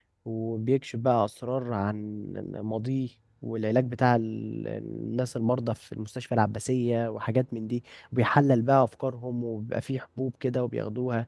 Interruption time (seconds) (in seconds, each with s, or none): none